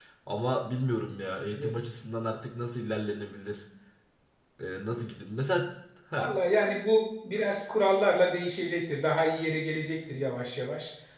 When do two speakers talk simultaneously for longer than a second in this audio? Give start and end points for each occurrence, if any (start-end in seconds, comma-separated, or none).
none